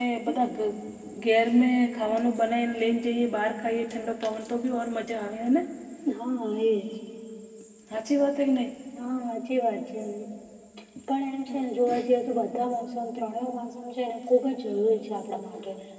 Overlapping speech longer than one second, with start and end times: none

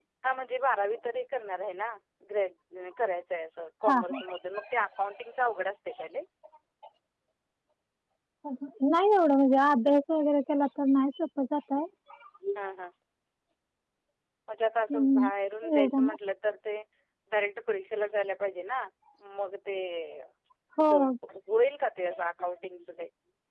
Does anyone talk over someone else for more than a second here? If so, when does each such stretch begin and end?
none

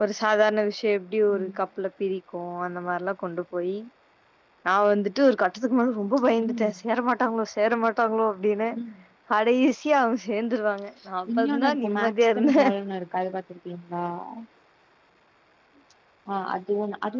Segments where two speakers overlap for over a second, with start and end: 11.4-12.6

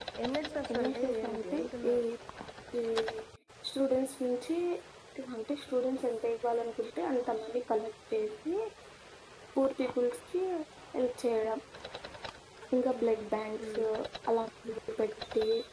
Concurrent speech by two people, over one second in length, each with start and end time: 0.7-1.9

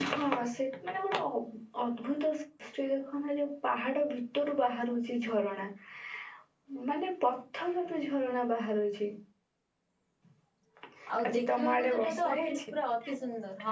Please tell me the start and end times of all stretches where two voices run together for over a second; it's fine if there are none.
11.3-12.6

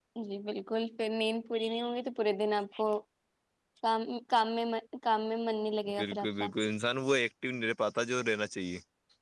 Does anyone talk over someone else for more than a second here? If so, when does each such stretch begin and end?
none

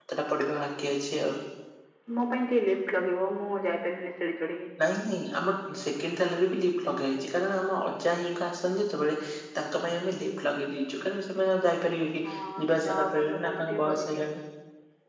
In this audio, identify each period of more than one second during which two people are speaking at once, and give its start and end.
12.6-14.1

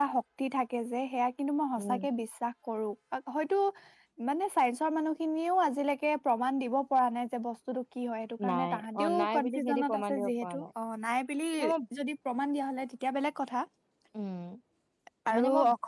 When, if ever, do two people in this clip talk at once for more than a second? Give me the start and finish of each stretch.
8.5-10.5

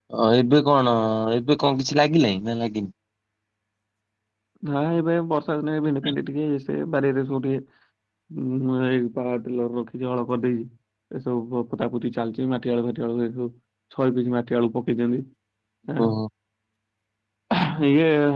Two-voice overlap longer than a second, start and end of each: none

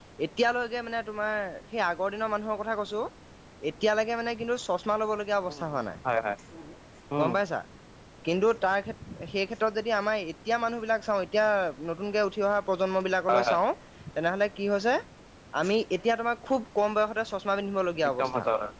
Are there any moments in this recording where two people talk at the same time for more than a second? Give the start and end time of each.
none

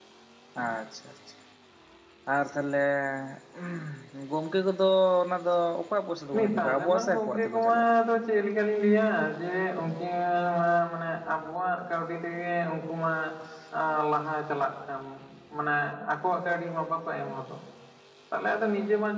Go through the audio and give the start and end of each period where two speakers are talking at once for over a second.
6.3-7.8

